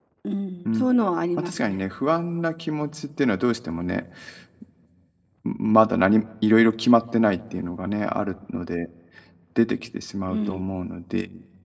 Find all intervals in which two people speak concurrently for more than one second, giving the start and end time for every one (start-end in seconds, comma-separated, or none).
none